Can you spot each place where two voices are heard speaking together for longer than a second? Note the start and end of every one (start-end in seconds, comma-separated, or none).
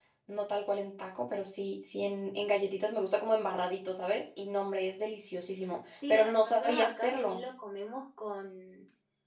6.1-7.4